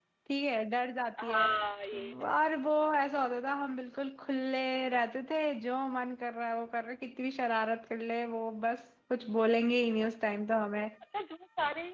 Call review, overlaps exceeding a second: none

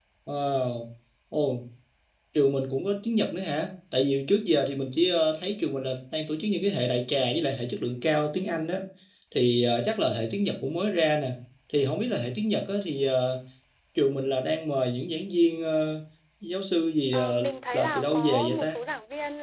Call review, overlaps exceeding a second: present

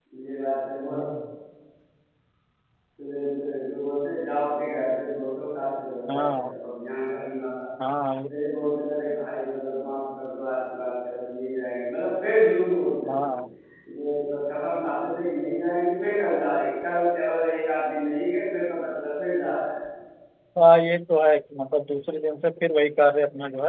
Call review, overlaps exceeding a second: none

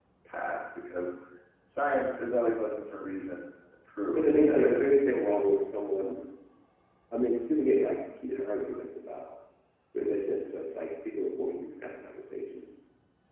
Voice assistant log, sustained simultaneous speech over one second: present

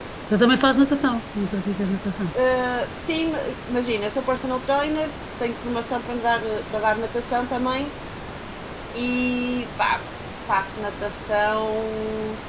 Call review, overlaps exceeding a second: none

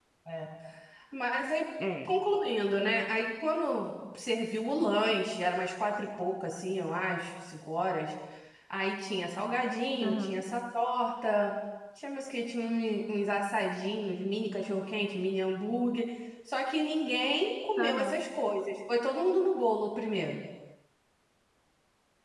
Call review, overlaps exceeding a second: none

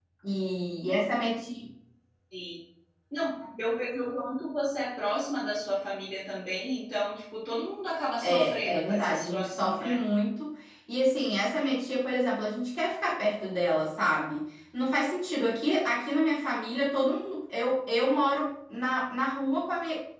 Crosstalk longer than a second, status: present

